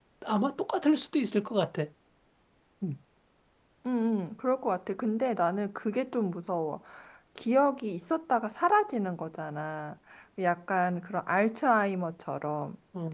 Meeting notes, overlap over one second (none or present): none